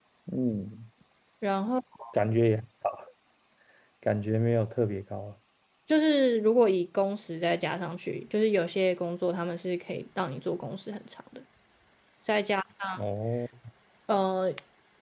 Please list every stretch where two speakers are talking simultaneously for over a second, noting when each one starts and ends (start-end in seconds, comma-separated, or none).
none